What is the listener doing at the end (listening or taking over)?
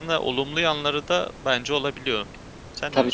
taking over